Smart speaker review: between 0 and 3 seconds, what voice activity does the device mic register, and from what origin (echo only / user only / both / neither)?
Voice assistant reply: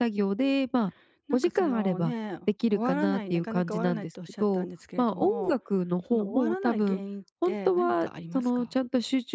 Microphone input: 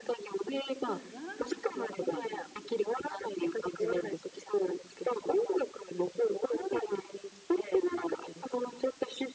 both